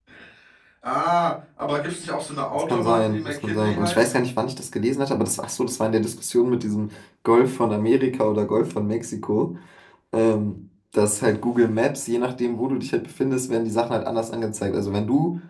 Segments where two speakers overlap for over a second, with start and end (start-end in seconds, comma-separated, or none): 2.5-4.2